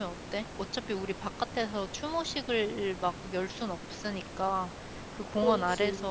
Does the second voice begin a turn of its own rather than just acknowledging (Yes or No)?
No